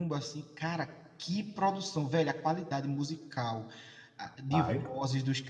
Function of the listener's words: listening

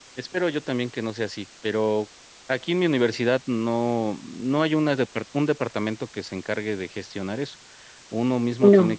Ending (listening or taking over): listening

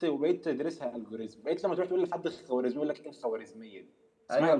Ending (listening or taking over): taking over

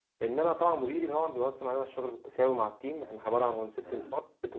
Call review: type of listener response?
listening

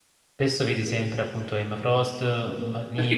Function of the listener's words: taking over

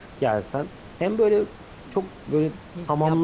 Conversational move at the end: taking over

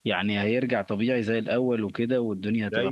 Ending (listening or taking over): taking over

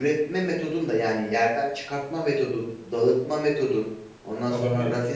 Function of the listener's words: listening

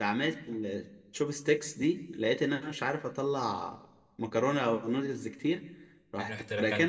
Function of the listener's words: listening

